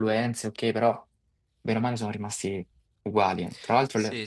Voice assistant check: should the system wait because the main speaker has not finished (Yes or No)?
Yes